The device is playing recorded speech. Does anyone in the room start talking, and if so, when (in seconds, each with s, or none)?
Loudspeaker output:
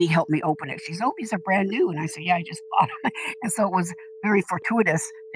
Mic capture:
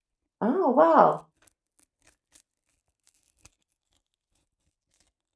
0.4 s